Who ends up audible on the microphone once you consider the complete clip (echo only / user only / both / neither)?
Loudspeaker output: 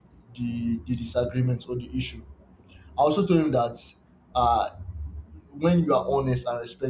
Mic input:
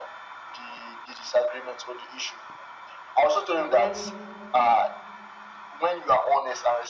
both